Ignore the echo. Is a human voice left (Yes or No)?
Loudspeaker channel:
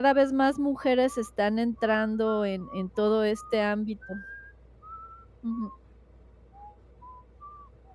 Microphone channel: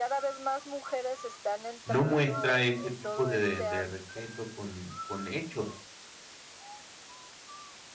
Yes